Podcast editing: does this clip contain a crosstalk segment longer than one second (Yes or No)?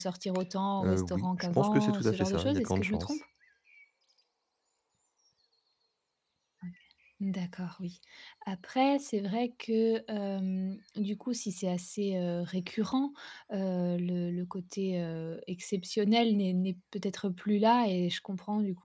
Yes